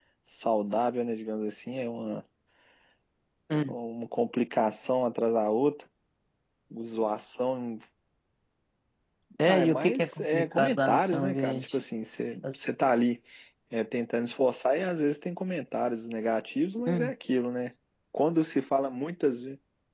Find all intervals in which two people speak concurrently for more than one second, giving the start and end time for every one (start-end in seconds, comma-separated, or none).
9.4-11.8